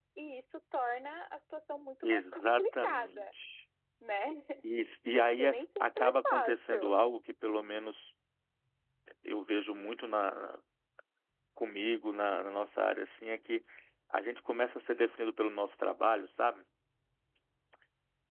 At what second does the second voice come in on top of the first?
2.0 s

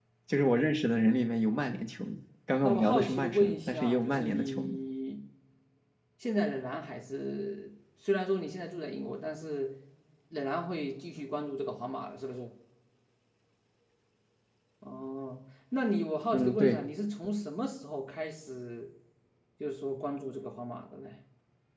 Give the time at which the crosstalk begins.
2.6 s

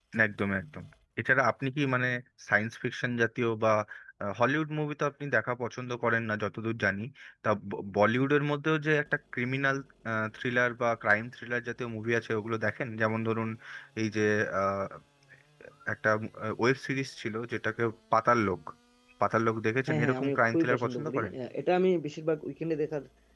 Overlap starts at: 19.9 s

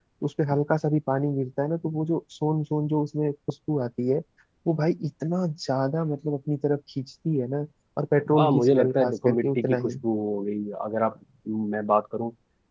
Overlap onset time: 8.3 s

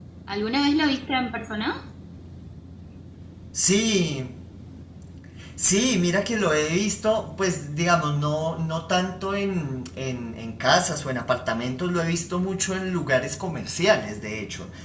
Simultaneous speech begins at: none

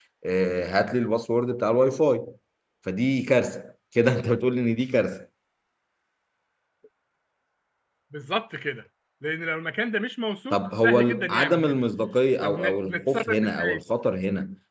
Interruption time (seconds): 10.5 s

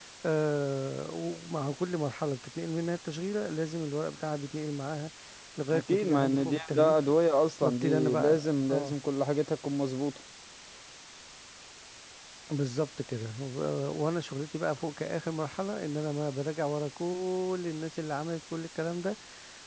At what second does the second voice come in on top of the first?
5.7 s

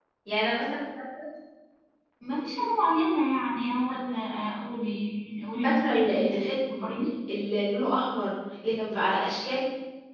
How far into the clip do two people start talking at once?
5.6 s

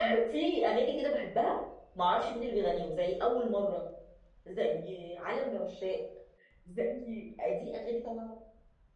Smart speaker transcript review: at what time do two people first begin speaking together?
none

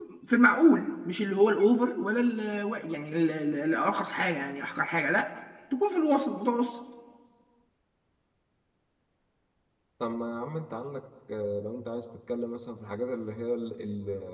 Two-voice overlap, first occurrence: none

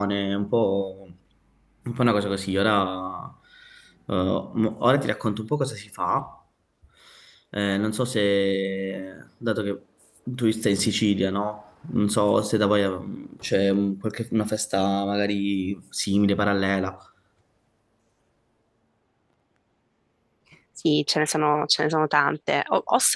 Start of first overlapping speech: none

